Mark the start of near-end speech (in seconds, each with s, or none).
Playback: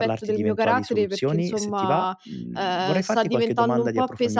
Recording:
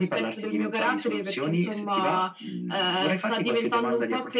none